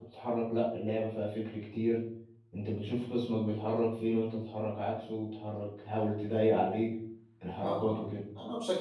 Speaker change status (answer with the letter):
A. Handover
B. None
A